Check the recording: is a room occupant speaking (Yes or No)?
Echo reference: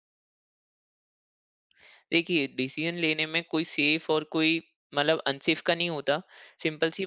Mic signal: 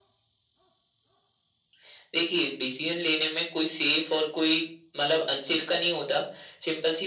No